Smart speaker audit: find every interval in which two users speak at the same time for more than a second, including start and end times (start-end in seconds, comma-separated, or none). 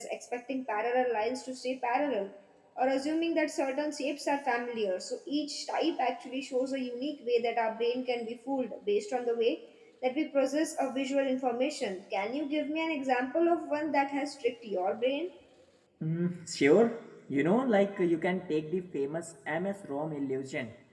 none